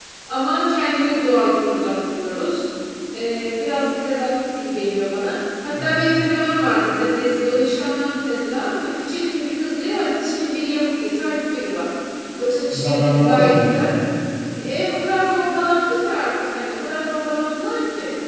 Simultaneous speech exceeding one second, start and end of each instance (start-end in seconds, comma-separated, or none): 12.7-13.9